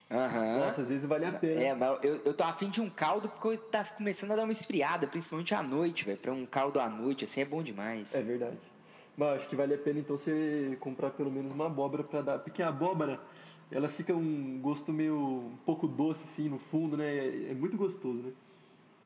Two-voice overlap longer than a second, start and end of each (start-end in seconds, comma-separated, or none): none